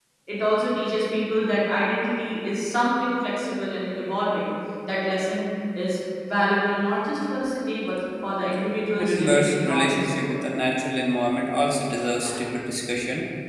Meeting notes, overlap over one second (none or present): present